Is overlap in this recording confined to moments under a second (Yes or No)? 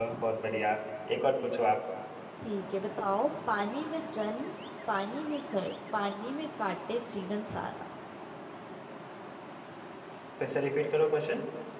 Yes